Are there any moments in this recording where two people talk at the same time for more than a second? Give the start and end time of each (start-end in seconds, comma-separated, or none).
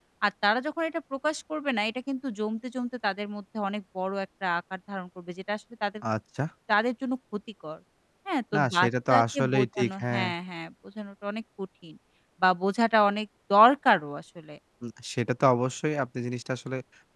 8.6-10.2